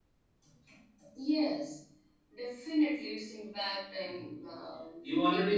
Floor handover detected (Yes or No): Yes